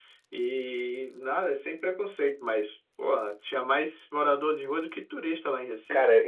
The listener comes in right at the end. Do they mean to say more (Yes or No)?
Yes